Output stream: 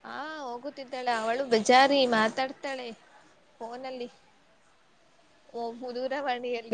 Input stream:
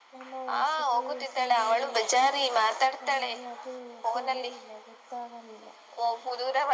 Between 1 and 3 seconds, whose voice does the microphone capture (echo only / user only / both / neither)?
both